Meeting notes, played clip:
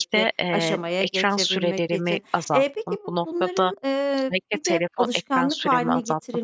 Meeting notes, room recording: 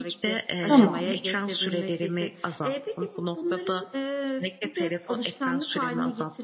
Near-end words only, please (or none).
Tamam.